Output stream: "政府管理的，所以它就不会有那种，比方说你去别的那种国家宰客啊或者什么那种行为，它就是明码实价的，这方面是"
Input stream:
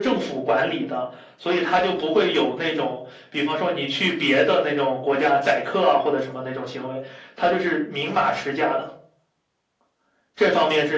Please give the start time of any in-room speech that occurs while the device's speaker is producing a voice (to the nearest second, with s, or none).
none